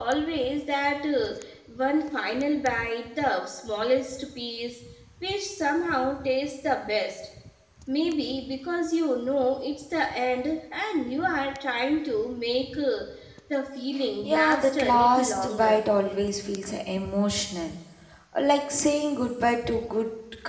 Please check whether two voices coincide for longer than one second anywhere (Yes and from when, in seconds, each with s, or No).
Yes, from 14.2 s